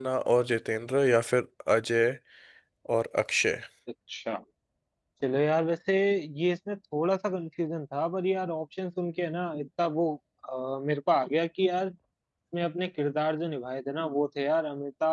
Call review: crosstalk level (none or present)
none